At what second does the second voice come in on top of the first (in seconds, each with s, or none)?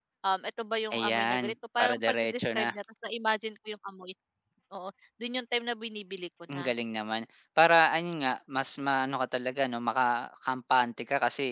0.9 s